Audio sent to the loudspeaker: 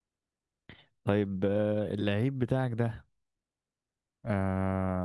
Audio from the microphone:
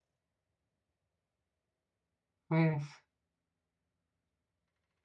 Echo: none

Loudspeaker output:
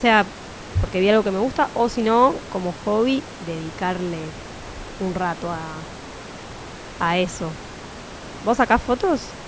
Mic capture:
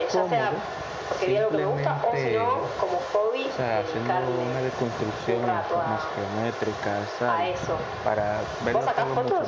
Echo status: present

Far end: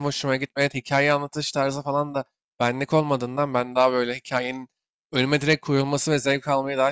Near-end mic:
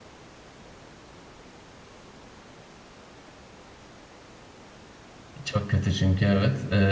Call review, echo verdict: none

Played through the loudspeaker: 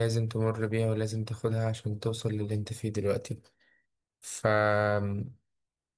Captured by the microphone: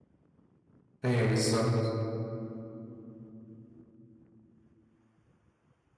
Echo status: none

